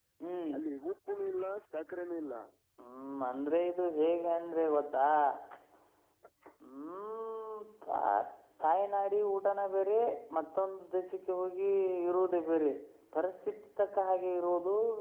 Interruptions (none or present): none